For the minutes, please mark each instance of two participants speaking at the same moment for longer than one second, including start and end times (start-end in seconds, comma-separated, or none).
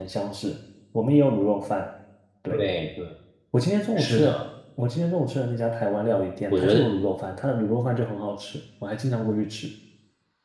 none